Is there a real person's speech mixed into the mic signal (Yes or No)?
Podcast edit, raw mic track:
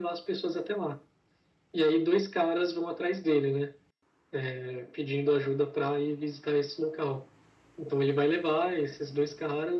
No